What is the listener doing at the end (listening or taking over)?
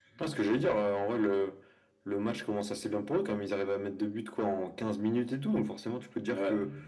listening